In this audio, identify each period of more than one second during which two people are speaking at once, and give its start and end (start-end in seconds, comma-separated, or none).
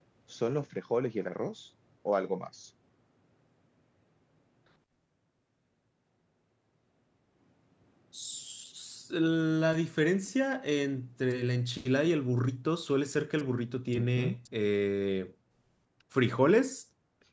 none